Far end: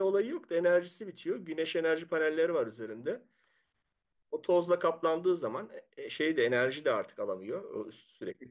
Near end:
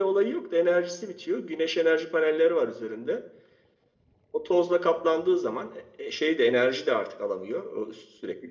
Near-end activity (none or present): none